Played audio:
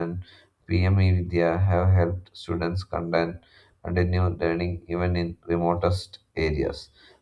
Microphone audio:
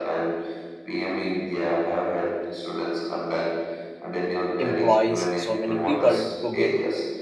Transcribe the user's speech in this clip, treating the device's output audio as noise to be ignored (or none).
employees, so many people to get